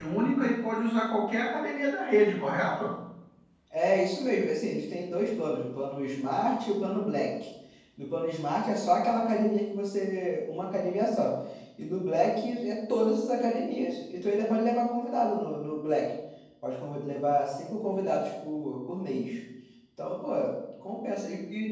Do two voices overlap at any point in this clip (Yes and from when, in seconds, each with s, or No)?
No